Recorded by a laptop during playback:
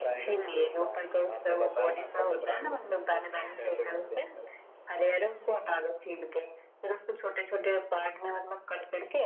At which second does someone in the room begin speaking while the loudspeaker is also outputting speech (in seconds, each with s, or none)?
none